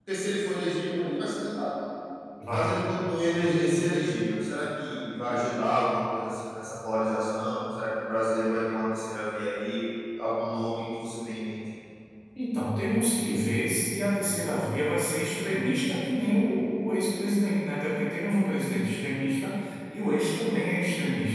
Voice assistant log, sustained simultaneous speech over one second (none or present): none